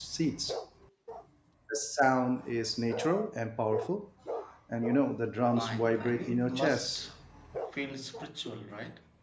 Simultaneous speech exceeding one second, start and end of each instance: 5.6-6.9

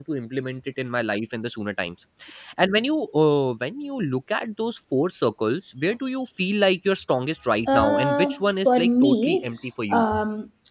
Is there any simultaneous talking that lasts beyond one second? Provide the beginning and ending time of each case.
7.7-9.5

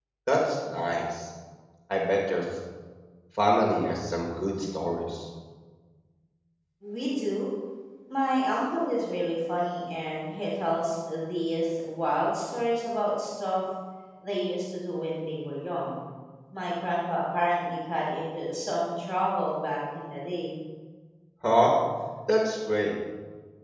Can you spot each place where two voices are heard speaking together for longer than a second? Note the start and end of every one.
none

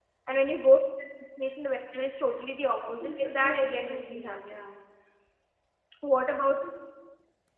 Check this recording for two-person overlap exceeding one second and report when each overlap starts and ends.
2.8-4.8

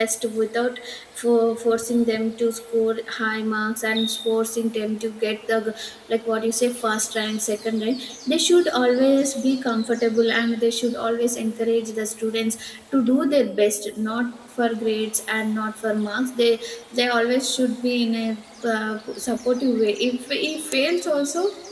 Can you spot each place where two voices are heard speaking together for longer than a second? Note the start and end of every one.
none

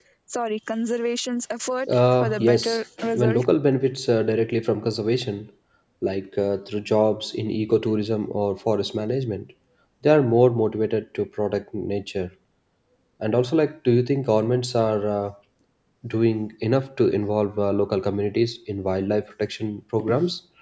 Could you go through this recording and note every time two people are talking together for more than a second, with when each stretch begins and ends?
1.9-3.4

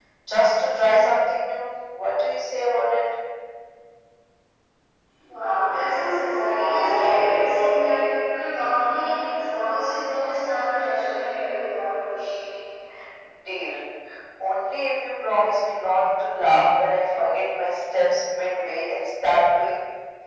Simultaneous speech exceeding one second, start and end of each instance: none

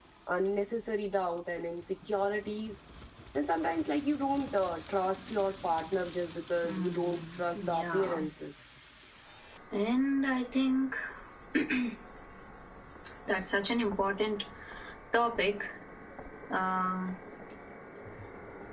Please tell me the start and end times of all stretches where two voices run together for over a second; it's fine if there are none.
6.6-8.2

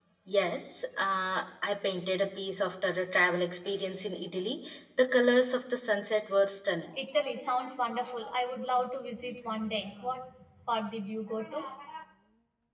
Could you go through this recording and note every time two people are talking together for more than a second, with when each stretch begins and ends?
none

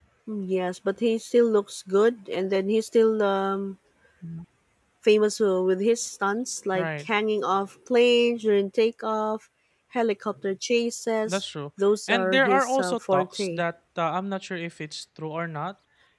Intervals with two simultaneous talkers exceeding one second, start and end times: 12.1-13.6

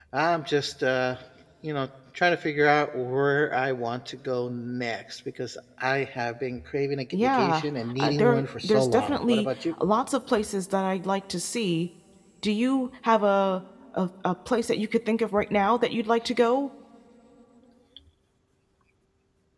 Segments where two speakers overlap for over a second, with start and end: 8.0-9.5

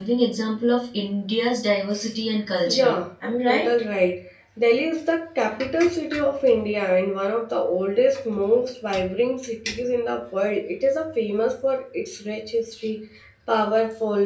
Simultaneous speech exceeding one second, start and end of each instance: none

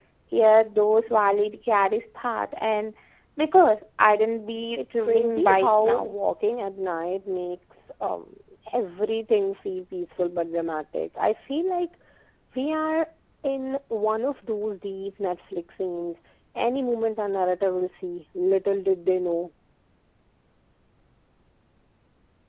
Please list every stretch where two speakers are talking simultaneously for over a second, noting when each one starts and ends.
4.8-6.1

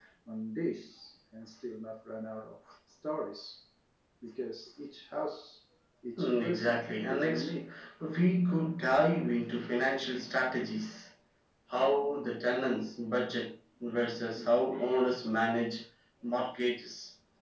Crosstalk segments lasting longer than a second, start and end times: 6.2-7.5

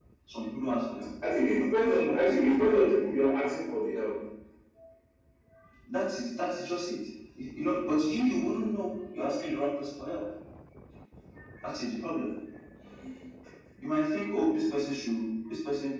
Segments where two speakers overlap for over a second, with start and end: 1.5-2.9

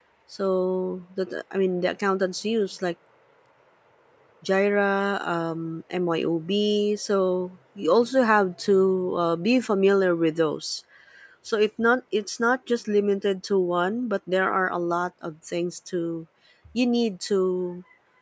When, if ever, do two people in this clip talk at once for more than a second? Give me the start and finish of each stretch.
none

